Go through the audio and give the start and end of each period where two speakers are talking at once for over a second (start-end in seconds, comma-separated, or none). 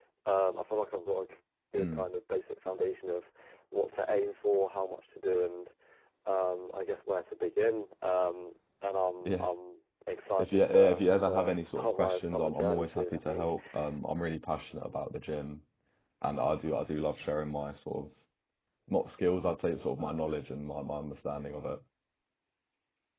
10.4-13.5